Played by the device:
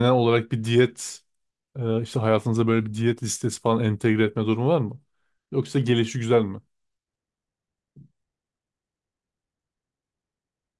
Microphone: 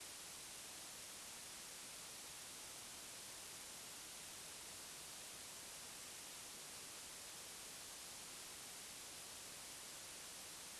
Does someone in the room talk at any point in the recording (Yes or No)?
No